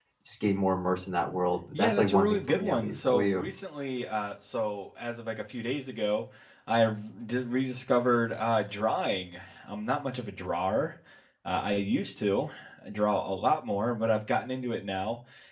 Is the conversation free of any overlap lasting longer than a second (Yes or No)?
No